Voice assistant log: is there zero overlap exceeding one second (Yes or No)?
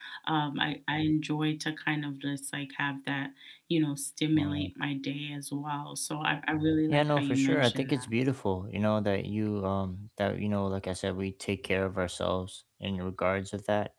No